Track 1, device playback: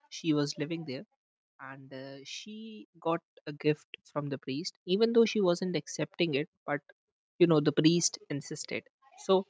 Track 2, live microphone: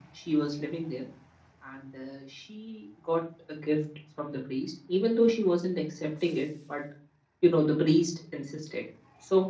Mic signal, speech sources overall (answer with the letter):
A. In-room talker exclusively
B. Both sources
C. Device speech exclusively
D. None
C